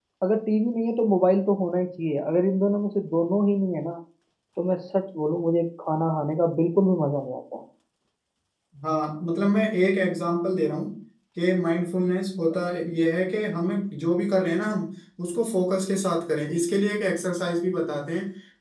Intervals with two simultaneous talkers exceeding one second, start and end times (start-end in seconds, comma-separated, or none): none